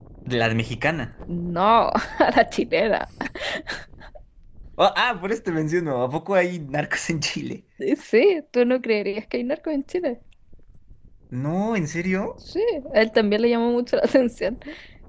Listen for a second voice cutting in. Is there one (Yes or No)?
No